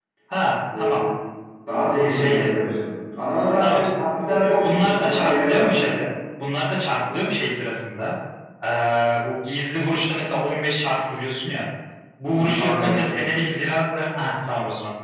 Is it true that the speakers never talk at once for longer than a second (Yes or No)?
No